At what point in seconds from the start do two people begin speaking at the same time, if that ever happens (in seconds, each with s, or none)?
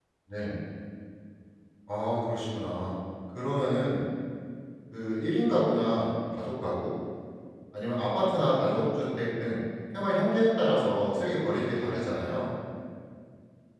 none